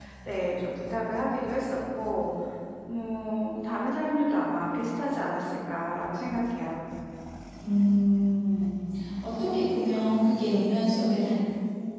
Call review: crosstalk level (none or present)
none